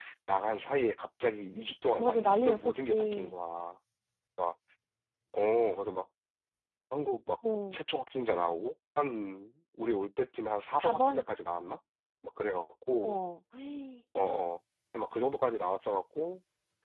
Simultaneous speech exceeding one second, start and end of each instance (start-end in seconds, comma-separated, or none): 2.0-3.3